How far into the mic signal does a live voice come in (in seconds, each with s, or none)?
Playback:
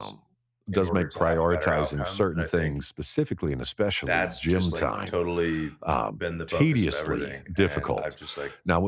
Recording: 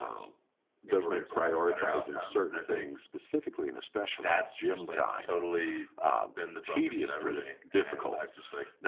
none